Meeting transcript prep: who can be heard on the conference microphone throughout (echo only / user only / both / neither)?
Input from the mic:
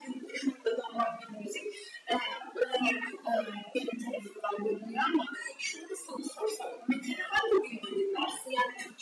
echo only